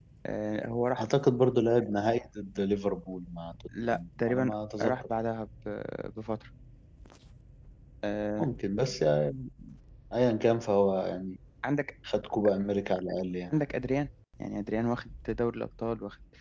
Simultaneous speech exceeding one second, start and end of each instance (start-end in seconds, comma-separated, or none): 3.8-5.0